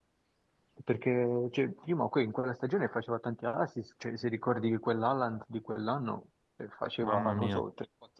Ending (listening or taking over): listening